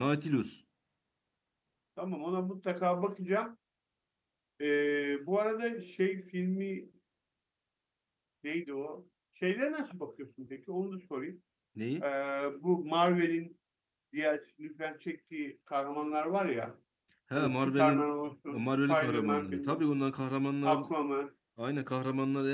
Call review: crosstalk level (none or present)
present